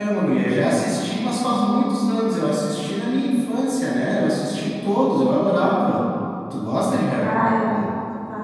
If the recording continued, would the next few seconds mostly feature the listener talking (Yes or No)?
Yes